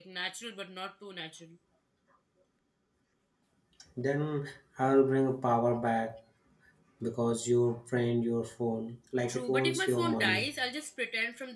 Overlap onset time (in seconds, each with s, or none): 9.3 s